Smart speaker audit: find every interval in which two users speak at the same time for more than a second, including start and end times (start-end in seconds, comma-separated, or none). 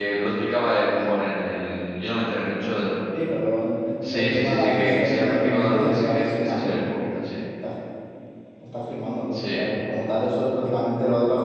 4.1-6.8